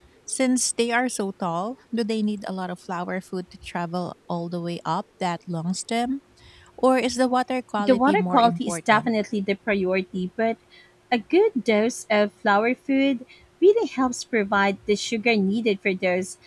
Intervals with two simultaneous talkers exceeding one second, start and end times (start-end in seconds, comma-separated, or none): 7.8-9.1